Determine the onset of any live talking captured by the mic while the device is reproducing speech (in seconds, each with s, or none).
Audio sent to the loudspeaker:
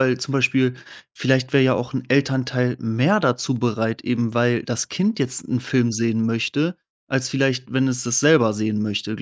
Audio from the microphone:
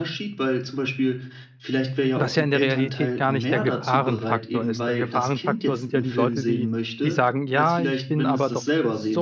2.1 s